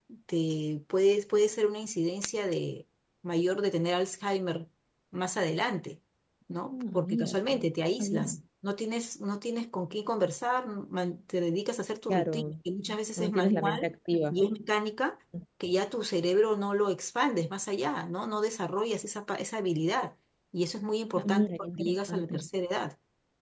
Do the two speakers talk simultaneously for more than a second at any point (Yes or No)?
Yes